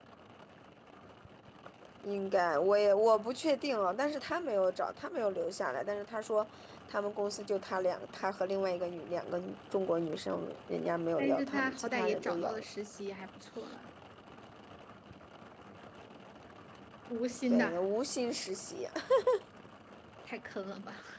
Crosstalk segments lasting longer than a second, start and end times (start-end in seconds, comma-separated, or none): 11.2-12.6